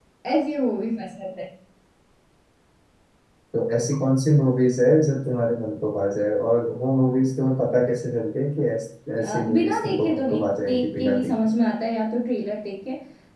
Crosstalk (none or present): present